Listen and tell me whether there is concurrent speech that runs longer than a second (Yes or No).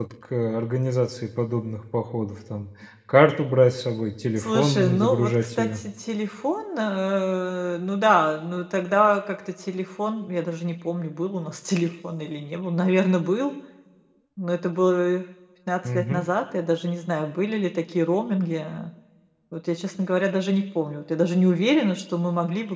Yes